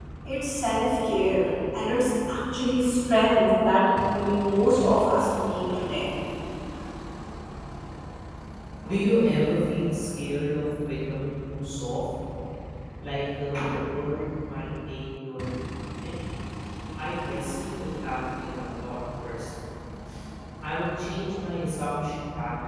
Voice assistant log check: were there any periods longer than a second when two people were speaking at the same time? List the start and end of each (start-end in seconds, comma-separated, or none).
none